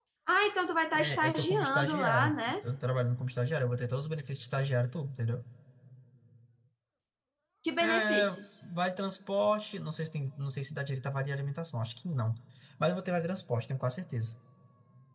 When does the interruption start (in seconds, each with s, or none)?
0.9 s